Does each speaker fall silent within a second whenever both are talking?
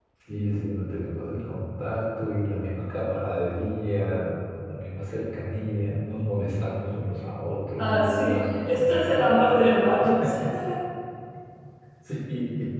No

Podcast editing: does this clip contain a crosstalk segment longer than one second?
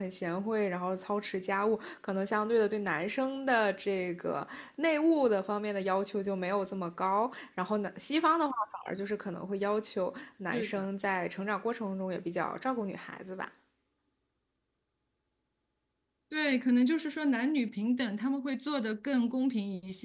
No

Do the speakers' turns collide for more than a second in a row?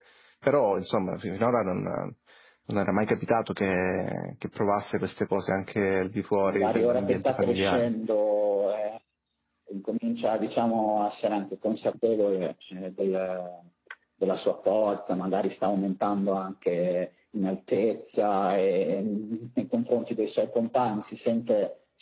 Yes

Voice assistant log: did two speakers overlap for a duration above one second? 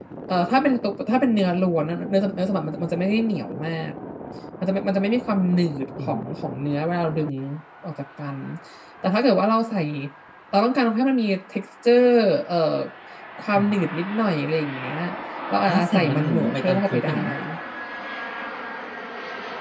Yes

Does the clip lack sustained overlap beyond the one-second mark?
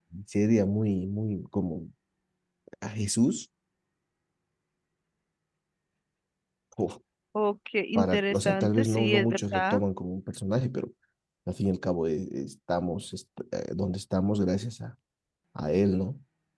No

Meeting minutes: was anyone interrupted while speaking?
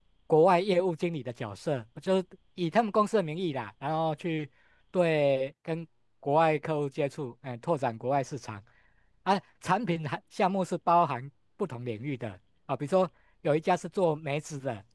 No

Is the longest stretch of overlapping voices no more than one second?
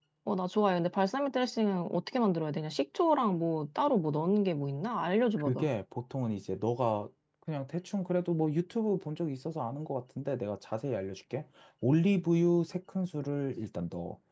Yes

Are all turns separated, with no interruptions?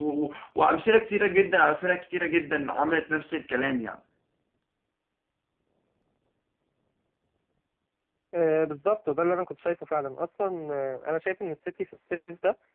Yes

